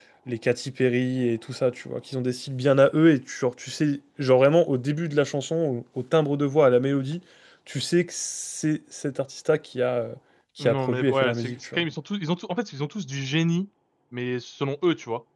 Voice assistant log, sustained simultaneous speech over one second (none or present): present